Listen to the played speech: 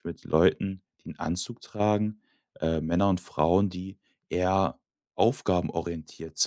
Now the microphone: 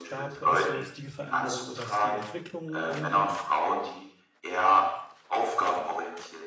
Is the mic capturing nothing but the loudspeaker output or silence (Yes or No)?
No